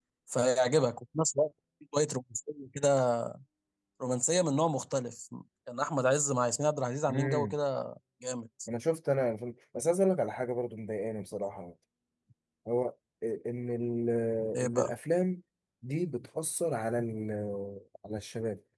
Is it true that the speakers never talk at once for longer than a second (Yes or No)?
Yes